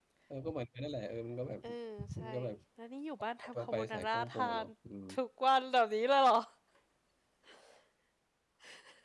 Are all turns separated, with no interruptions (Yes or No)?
No